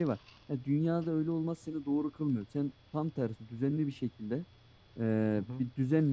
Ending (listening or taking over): listening